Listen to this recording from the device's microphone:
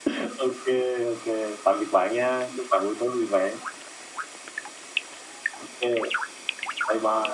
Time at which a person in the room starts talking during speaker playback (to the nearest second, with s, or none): none